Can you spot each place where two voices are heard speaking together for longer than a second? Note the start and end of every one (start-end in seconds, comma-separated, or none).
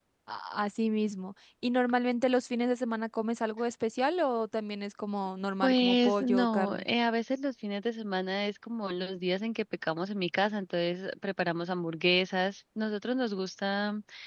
5.6-6.8